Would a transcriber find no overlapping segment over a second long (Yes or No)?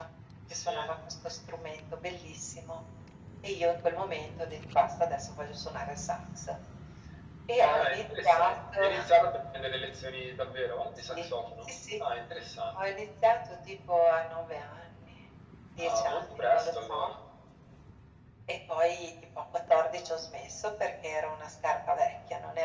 No